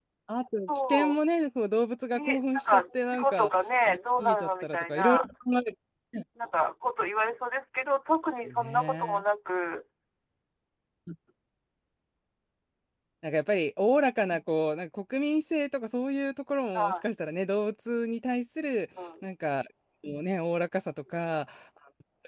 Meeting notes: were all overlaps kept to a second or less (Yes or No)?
No